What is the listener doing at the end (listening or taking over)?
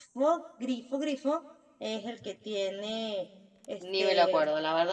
taking over